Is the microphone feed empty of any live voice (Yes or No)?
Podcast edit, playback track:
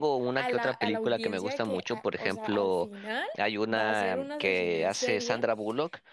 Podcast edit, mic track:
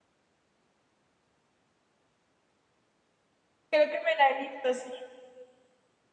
No